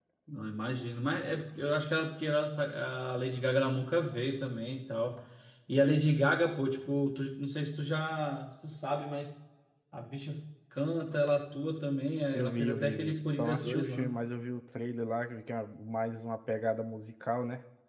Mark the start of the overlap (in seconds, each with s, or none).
12.3 s